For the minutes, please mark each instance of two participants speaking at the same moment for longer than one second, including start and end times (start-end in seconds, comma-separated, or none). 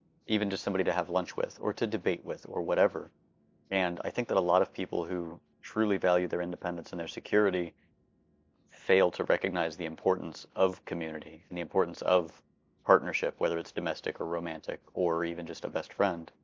none